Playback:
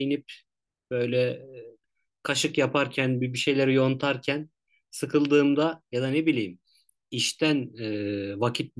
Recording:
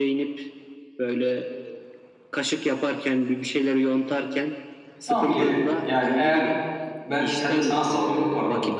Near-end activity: present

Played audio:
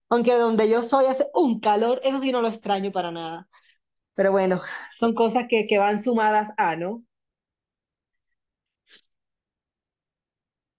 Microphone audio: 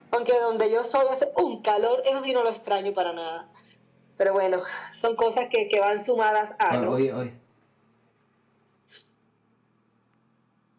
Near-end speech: present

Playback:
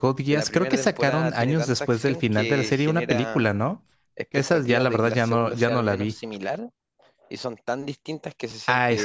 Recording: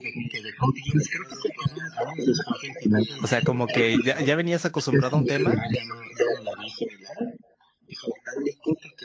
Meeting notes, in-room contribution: present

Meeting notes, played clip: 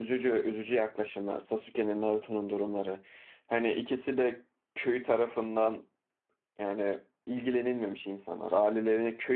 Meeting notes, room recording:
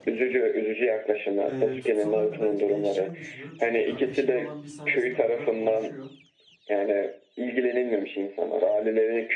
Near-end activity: present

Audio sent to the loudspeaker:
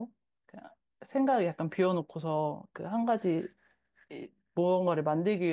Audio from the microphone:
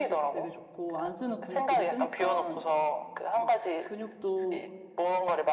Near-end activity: present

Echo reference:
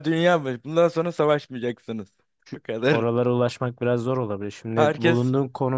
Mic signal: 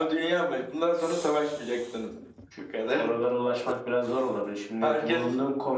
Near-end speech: none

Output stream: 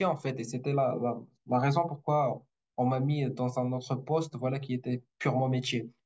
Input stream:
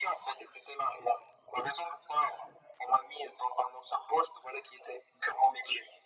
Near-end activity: none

